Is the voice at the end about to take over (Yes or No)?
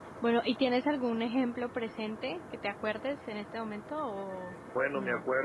Yes